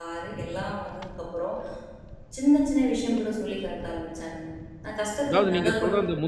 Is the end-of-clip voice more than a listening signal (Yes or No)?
Yes